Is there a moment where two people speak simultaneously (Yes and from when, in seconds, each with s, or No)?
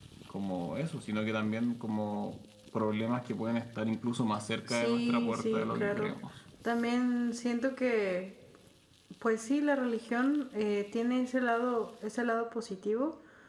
Yes, from 4.7 s